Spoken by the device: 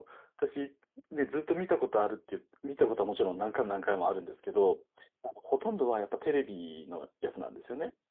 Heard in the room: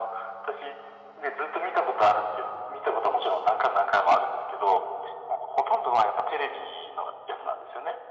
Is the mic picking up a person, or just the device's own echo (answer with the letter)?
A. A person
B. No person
B